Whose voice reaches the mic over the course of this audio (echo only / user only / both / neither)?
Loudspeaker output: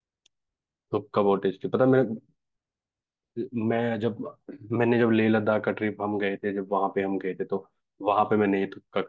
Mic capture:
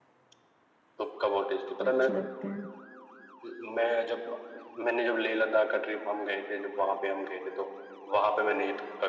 both